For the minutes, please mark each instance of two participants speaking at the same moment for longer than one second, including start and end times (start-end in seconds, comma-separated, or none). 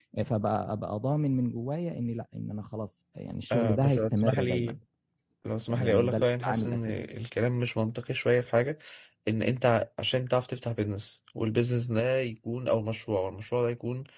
3.5-4.8, 5.7-6.9